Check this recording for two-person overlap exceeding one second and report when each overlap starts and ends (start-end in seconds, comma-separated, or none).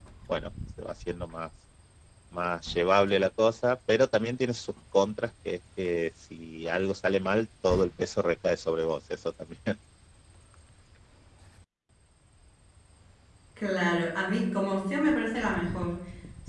none